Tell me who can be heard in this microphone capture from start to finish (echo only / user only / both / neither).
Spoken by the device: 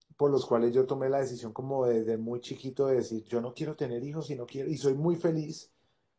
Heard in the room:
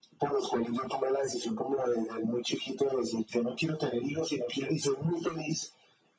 echo only